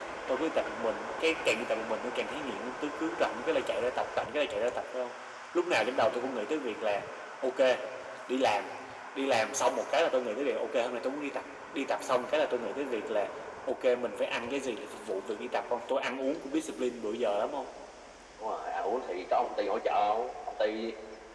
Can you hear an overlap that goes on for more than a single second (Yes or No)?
No